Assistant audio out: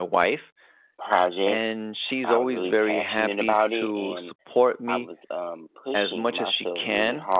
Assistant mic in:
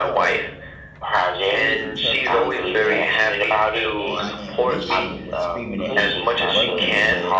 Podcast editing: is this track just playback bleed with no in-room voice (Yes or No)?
No